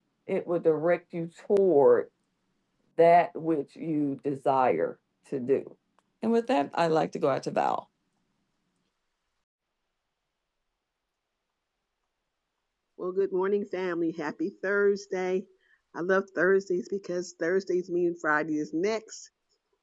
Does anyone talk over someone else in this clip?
No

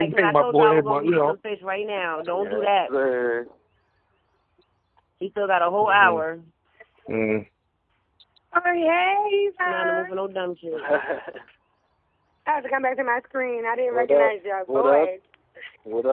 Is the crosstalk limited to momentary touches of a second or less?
No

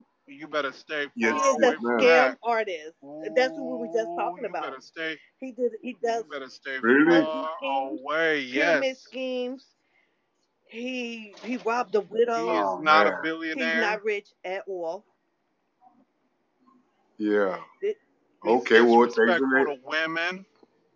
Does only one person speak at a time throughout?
No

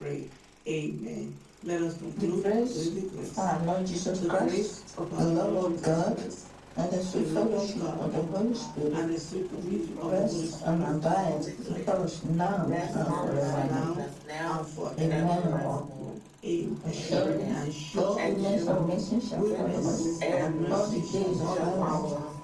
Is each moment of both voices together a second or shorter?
No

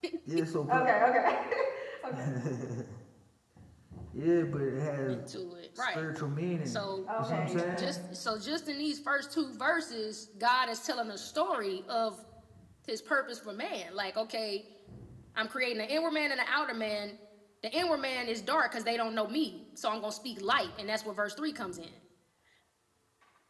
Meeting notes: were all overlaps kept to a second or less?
No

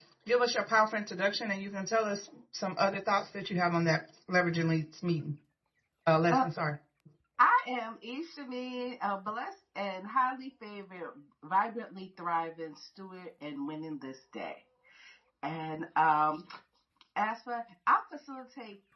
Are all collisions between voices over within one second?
Yes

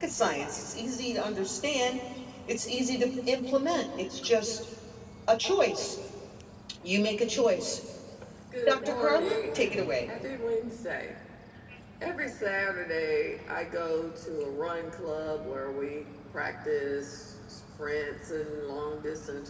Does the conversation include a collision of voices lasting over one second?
Yes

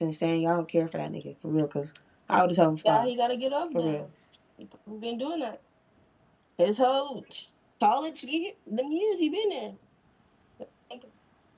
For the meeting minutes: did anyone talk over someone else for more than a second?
No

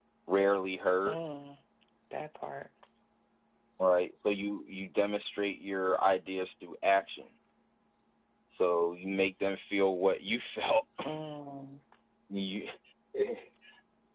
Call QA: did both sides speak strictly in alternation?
Yes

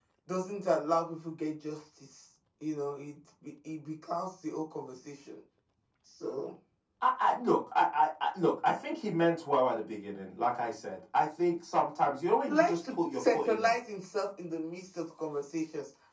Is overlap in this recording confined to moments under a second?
No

